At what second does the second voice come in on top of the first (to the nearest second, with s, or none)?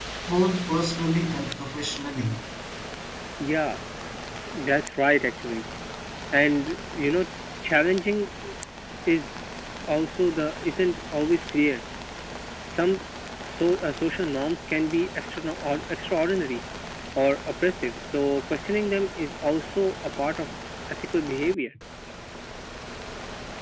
none